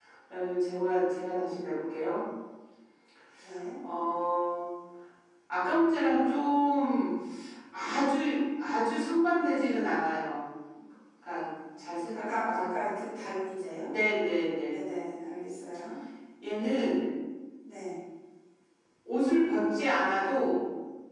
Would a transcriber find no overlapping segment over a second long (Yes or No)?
Yes